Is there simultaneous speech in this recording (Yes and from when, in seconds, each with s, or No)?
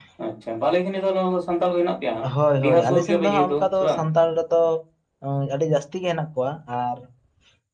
Yes, from 2.6 s